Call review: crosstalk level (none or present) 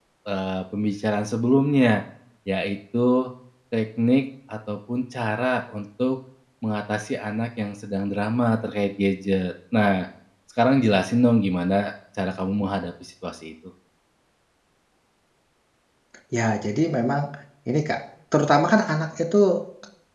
none